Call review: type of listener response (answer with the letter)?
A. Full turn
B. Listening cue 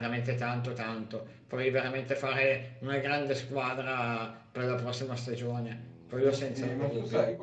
A